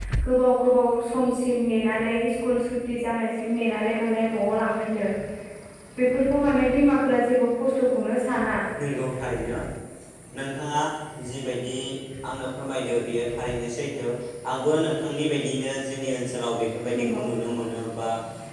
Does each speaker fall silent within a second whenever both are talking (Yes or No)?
Yes